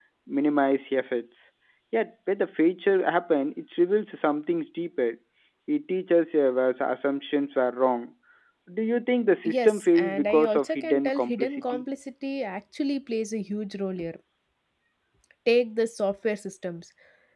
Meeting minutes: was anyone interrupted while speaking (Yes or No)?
Yes